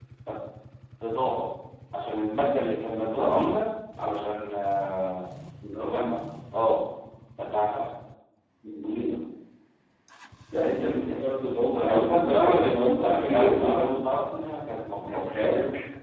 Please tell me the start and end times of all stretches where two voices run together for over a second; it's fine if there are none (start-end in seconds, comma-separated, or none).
11.8-14.1